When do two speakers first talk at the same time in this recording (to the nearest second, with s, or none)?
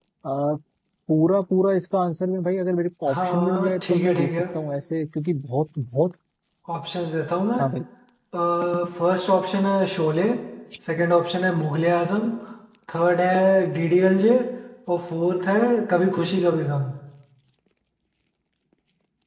3 s